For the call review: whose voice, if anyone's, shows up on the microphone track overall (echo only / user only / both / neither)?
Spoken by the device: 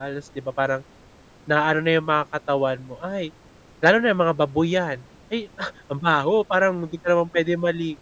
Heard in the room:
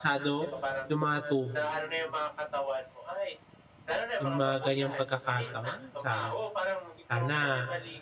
both